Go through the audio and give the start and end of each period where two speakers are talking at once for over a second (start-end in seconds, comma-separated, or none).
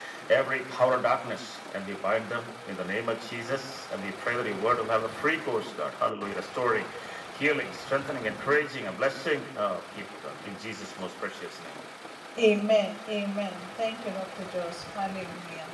none